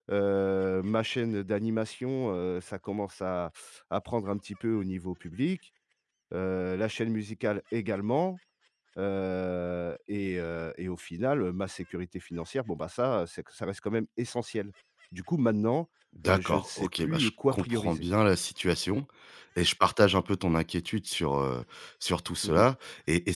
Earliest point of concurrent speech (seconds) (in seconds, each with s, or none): 16.3 s